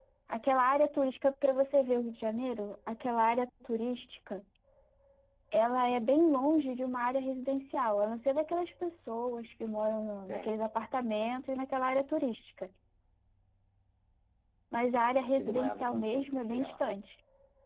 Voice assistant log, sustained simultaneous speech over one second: present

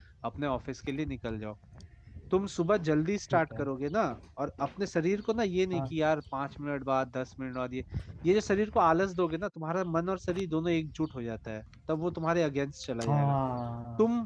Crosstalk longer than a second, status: none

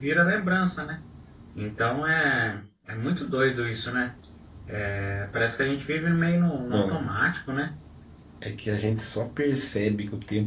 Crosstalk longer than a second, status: none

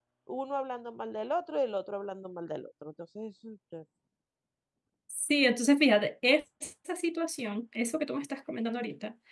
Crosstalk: none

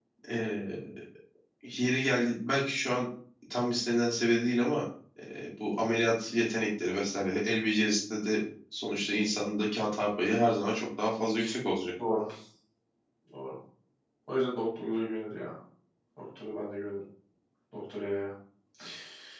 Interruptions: none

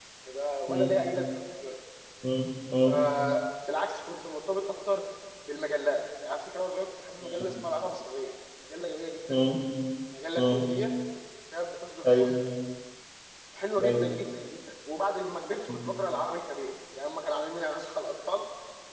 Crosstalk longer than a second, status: none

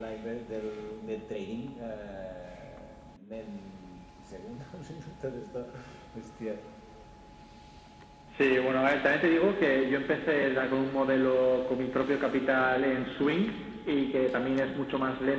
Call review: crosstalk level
none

